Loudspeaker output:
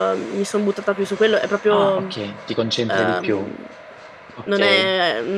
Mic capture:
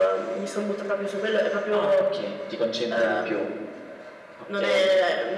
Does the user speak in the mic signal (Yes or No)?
No